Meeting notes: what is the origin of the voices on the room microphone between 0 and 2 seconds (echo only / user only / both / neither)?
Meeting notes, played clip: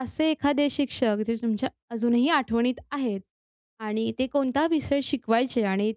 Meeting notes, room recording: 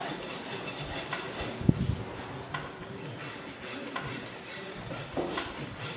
neither